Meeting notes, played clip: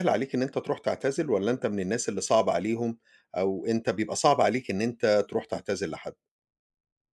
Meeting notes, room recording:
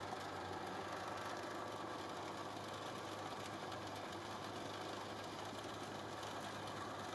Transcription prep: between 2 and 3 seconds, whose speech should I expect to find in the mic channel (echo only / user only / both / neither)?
neither